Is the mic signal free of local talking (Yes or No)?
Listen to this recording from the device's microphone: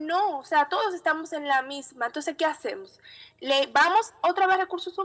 Yes